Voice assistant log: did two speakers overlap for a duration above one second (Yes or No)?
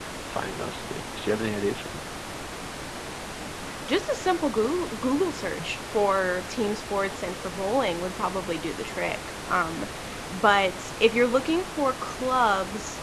No